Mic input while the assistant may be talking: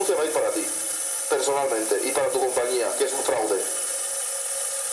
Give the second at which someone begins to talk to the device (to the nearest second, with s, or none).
none